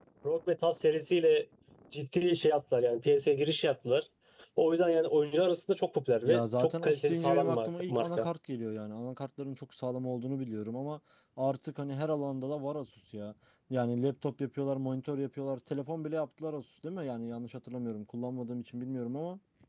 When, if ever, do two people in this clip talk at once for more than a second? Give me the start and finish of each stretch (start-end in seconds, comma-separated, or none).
6.2-8.3